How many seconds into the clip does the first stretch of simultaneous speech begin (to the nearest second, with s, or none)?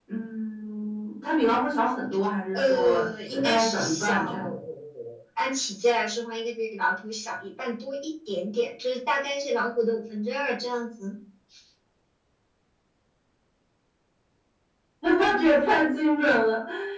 3 s